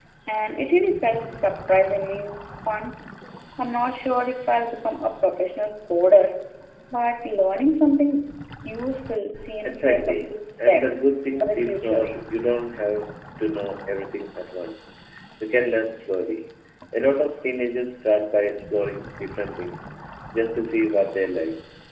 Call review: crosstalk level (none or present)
present